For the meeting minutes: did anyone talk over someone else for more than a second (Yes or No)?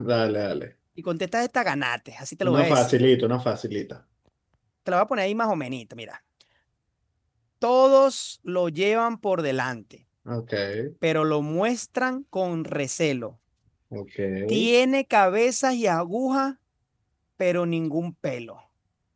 No